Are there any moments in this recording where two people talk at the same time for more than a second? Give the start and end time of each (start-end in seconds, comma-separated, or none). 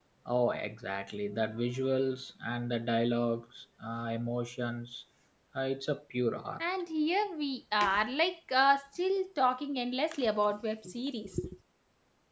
none